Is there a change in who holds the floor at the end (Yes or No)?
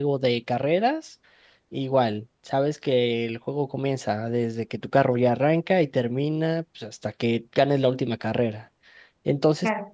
No